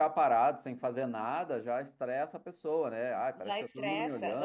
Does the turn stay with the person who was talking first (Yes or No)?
No